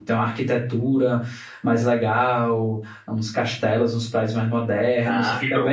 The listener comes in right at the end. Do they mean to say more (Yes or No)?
No